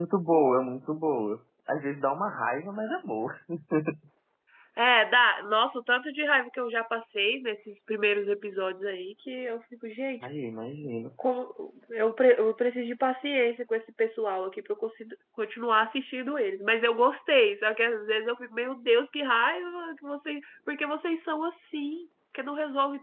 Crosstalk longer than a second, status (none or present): none